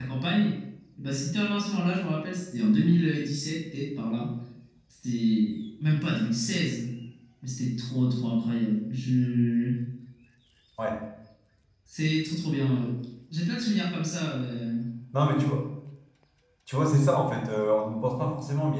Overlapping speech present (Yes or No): No